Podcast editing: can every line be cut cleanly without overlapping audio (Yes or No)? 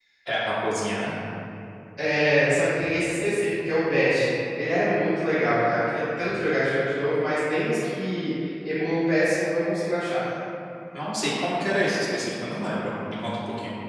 Yes